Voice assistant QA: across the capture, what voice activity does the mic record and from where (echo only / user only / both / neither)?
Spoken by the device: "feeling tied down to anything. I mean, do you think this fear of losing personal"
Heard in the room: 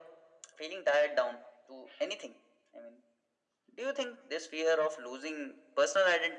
echo only